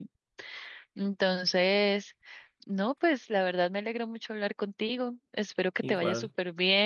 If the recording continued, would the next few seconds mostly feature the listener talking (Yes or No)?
No